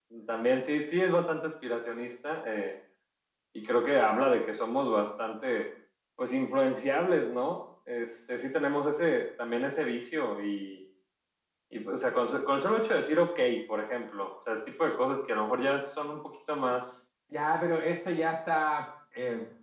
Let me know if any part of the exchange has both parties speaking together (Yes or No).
No